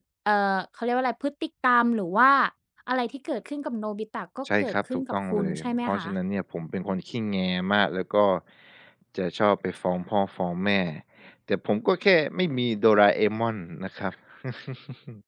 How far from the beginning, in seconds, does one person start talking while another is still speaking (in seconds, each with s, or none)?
4.5 s